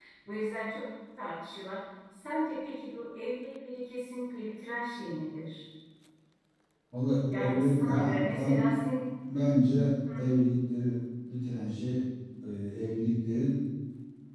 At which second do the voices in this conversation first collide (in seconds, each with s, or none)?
7.3 s